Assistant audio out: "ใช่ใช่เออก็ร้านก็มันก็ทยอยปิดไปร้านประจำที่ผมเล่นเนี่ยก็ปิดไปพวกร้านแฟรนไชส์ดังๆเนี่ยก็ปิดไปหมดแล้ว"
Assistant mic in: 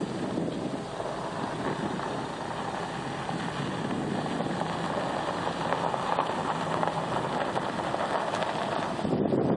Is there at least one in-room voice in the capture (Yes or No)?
No